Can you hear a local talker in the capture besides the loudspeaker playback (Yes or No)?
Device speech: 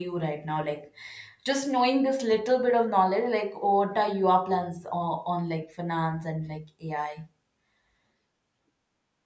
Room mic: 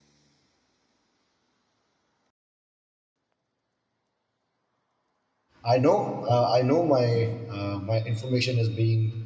Yes